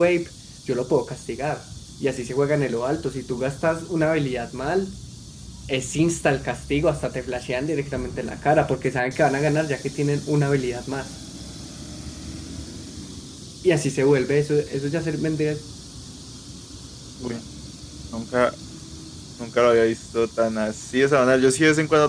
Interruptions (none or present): none